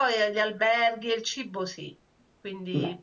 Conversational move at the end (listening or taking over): listening